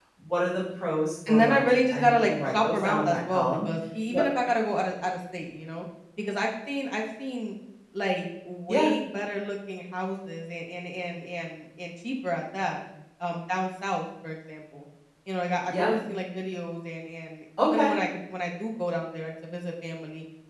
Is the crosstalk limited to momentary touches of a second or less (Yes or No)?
No